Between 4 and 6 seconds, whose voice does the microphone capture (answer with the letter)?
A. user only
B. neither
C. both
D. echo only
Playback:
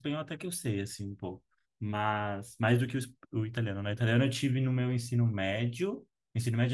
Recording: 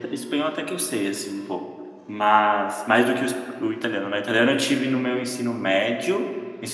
D